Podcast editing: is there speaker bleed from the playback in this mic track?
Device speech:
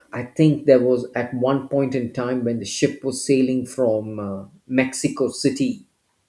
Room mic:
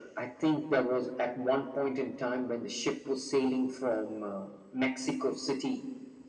Yes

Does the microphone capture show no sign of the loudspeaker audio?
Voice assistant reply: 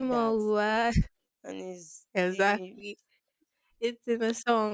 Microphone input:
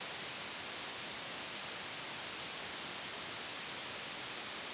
Yes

